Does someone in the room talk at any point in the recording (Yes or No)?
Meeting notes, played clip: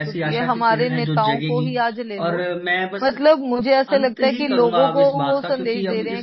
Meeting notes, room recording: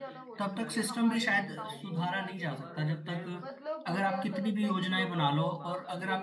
Yes